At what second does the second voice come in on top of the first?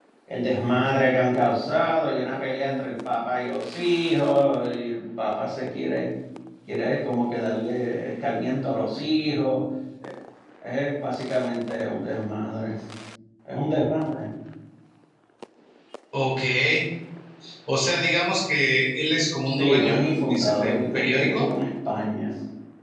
19.4 s

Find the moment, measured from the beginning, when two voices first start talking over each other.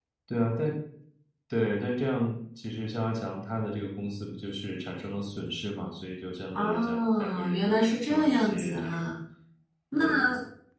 6.5 s

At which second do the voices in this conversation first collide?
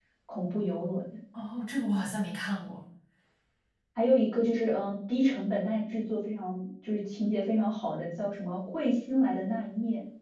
none

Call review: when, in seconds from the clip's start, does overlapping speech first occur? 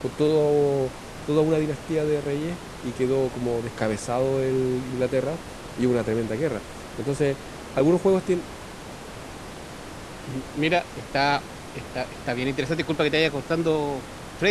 none

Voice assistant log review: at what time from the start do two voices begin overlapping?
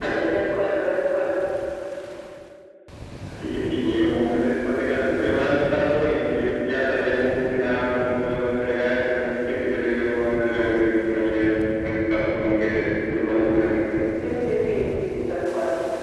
none

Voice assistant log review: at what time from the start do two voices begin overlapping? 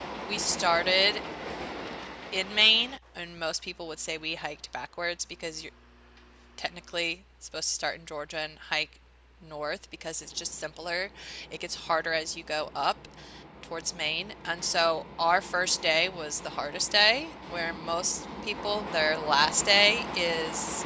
none

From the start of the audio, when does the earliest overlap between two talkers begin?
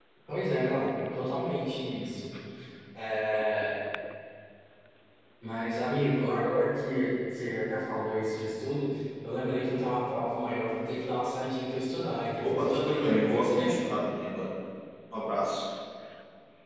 12.4 s

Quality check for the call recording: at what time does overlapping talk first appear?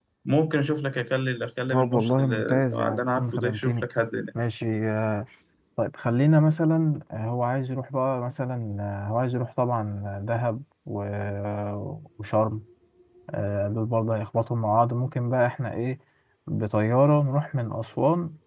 1.7 s

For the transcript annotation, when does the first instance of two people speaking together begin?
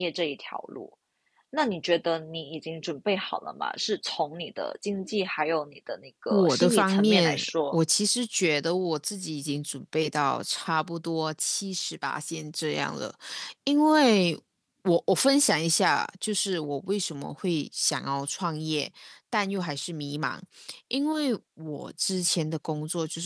6.3 s

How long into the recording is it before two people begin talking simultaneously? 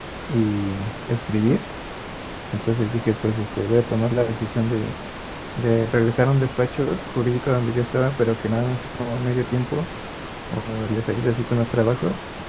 none

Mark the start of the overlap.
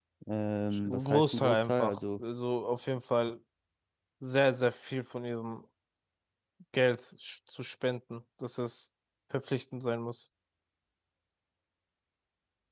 0.8 s

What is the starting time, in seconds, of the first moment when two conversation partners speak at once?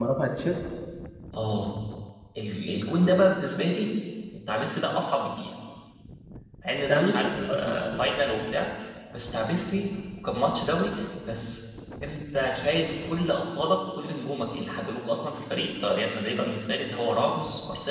6.8 s

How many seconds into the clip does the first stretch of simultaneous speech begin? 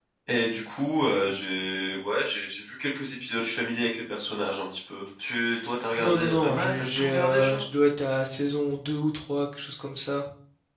6.0 s

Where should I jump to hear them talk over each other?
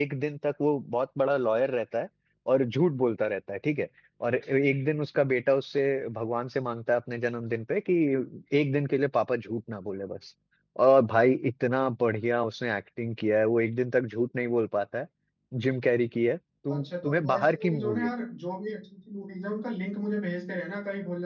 16.7 s

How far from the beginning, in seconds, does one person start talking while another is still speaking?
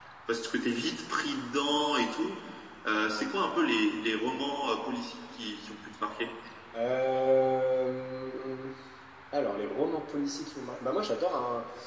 none

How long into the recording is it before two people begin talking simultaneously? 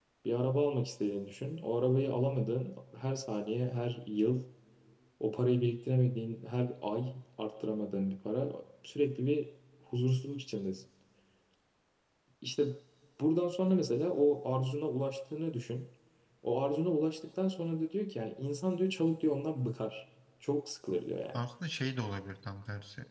none

